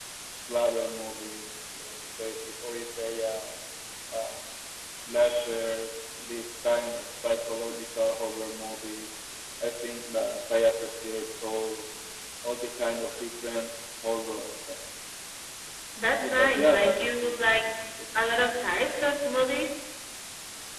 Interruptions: present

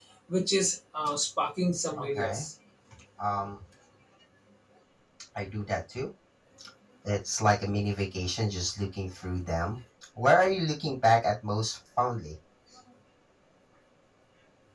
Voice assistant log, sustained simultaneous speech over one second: none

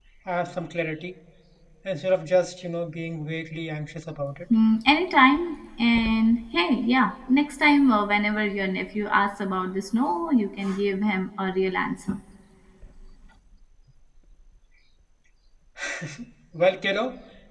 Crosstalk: none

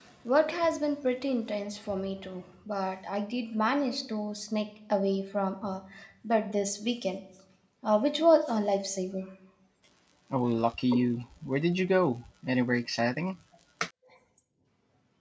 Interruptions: none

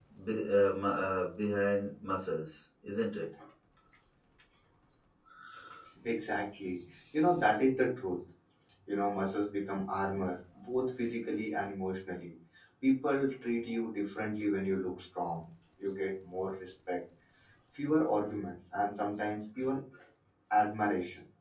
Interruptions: none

